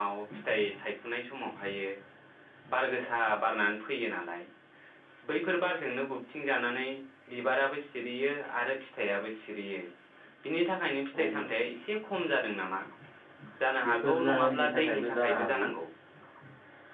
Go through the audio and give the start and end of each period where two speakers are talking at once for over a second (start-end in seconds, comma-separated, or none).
13.8-15.6